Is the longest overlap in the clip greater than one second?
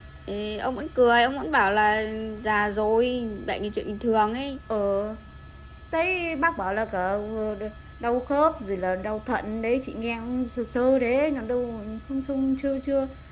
No

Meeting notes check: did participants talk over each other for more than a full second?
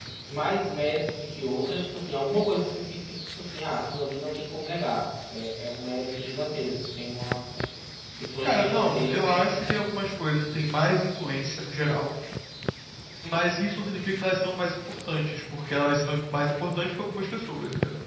Yes, from 8.4 s

